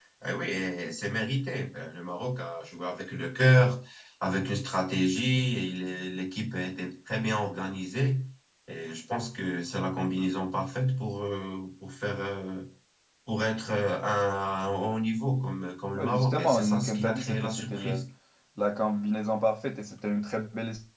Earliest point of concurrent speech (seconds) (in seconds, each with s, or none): 16.0 s